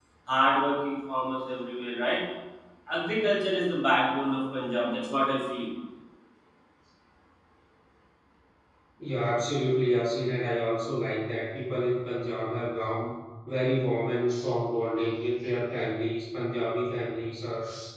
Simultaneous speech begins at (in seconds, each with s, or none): none